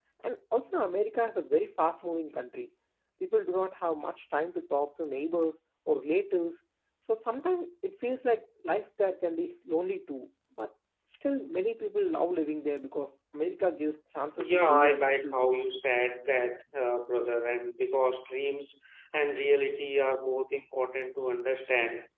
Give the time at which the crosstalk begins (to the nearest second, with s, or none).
14 s